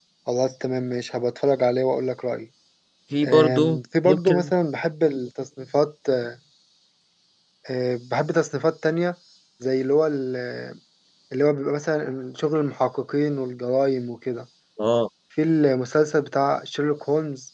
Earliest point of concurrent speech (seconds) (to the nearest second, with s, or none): 3 s